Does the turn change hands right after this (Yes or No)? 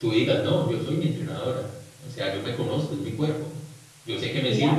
No